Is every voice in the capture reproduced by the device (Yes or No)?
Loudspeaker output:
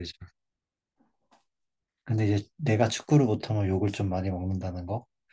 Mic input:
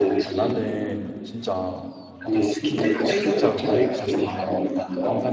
No